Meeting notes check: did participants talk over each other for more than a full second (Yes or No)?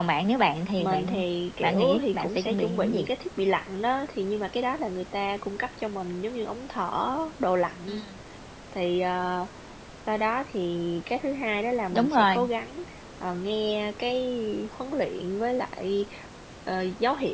Yes